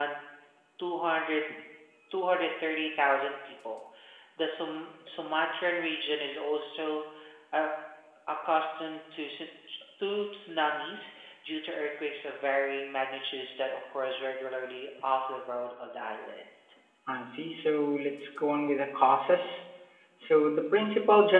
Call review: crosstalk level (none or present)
none